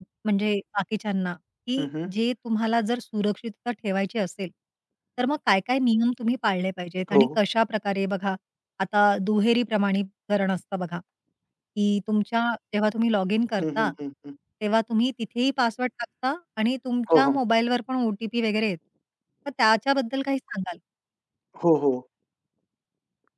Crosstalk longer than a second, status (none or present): none